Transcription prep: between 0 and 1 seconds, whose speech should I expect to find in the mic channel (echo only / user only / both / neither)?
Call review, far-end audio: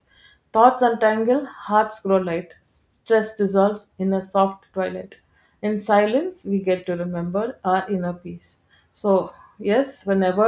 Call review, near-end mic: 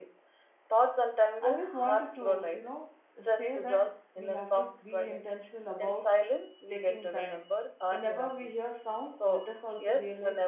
echo only